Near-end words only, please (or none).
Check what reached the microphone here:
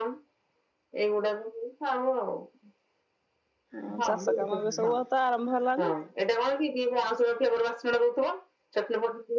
ହଁ ଚାଷ କାମ ଏବେ ସବୁ ତ ଆରମ୍ଭ ହେଲାଣିି।